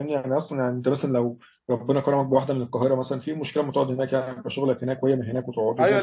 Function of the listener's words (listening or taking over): taking over